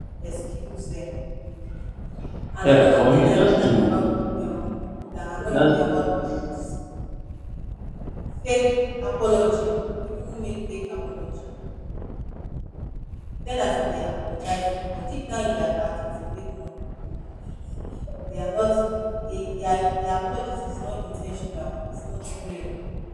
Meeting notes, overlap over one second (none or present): present